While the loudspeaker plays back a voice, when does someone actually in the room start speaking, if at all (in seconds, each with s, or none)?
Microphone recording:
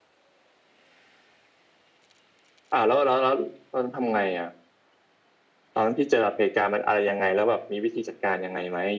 none